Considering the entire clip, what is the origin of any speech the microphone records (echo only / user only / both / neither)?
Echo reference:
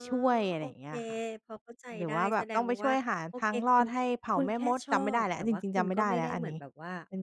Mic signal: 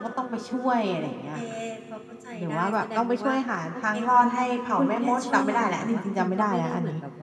echo only